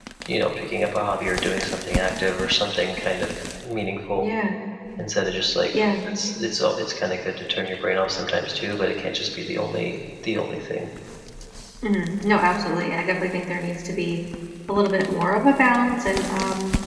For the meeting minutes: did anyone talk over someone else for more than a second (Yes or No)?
No